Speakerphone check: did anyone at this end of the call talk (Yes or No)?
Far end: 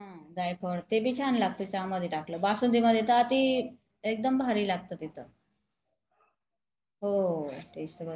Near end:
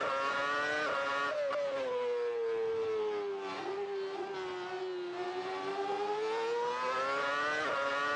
No